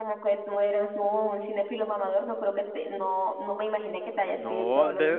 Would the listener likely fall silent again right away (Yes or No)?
No